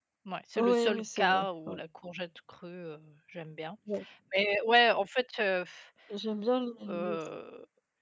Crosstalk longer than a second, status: present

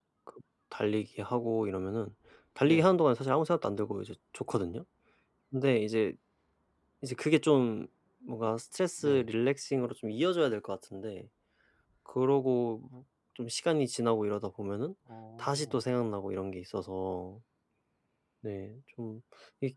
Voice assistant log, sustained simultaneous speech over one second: none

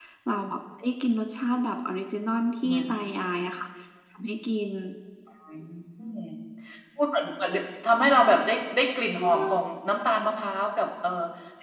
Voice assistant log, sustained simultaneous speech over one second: none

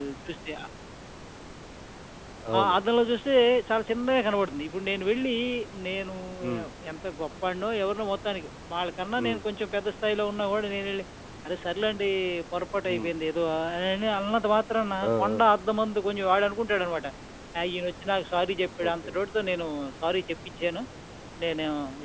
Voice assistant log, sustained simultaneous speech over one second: none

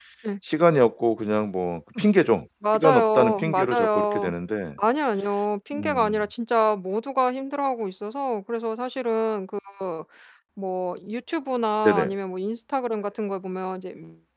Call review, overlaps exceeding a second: present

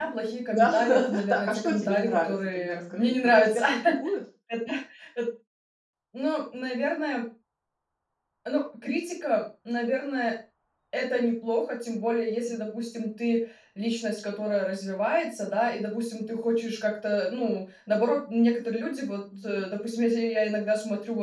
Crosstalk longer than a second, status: present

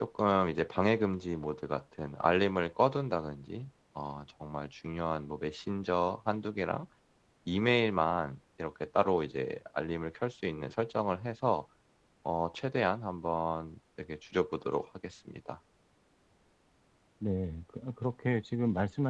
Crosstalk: none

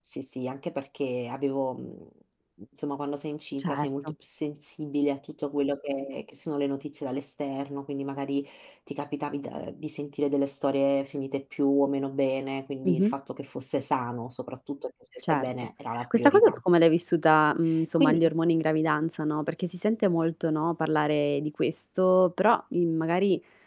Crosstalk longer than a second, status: none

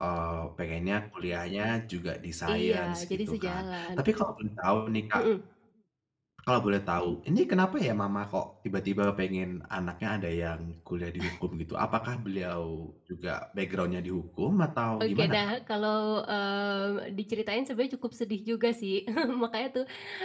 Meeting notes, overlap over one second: present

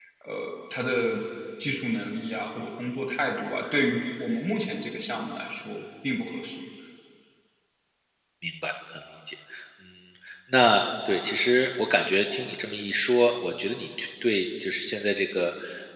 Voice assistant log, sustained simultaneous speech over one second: none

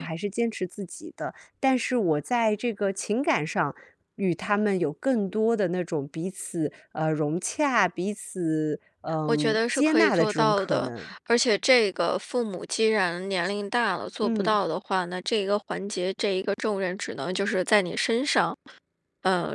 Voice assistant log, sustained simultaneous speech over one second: present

